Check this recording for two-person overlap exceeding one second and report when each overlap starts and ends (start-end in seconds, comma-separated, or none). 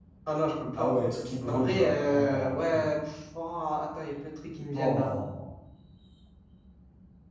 1.5-2.9